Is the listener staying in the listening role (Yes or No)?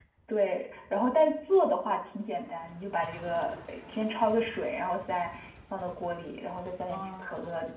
Yes